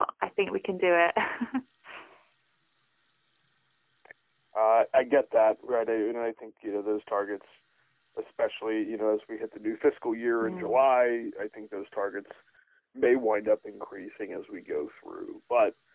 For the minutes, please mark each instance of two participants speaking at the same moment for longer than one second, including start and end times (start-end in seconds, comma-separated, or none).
none